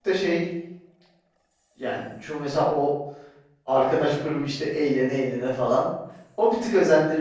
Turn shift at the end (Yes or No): No